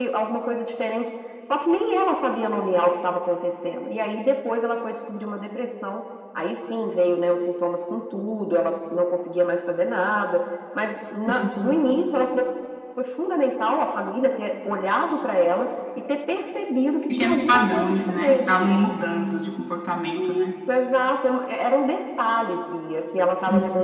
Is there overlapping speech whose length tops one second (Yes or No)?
Yes